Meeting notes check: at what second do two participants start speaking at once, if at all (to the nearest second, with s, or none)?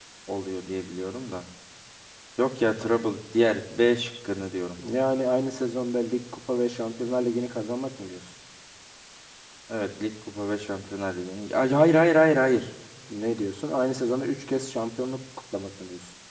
none